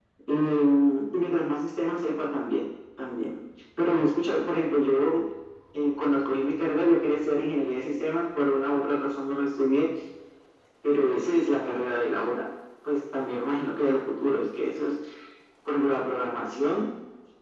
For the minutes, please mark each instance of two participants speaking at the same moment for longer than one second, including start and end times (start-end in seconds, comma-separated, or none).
none